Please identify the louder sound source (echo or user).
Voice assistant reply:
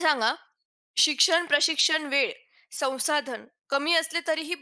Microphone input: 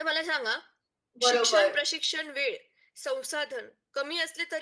user